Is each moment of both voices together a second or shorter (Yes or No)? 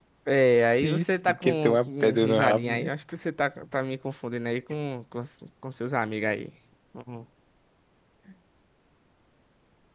No